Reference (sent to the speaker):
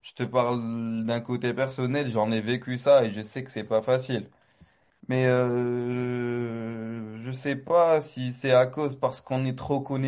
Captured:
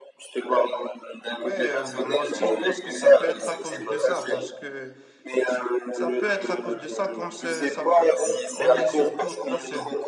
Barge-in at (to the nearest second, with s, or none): 1 s